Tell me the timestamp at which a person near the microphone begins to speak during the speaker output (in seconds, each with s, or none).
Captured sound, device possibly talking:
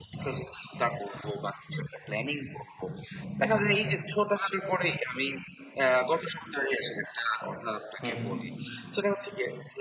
8.0 s